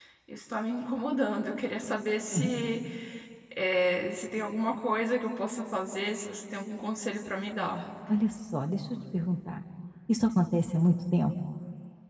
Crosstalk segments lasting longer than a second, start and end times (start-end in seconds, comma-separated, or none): none